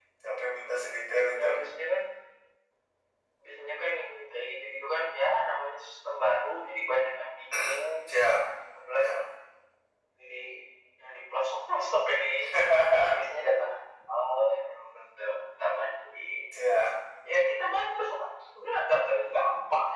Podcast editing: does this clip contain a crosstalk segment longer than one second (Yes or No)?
No